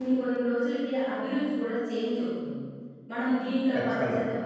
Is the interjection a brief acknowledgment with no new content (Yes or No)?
Yes